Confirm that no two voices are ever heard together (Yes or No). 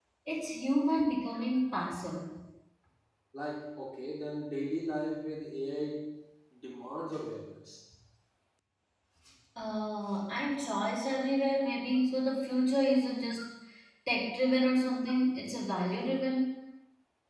Yes